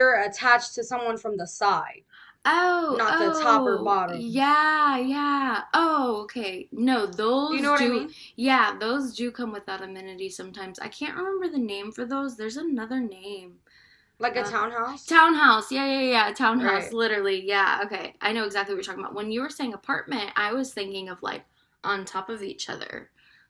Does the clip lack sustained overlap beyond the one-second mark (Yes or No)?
No